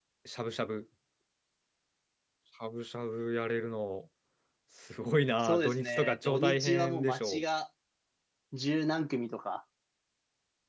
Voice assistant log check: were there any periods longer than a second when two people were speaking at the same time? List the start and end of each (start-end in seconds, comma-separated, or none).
5.4-7.4